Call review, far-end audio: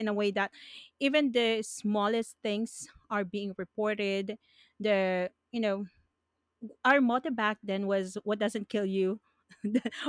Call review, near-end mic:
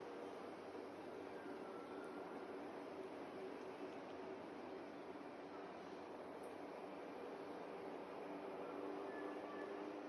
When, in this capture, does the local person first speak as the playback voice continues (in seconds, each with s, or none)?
none